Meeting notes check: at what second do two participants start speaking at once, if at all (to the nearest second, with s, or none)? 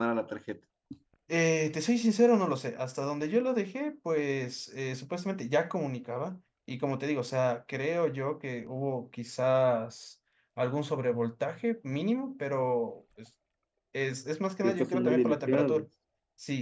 15 s